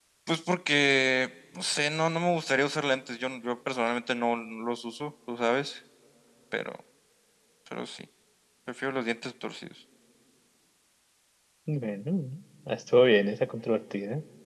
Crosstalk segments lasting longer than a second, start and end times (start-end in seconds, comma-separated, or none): none